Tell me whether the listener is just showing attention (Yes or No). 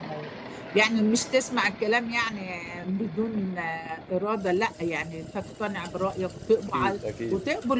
Yes